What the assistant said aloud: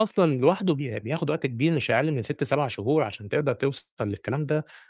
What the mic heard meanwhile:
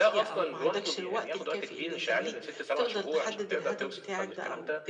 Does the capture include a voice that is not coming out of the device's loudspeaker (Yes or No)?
Yes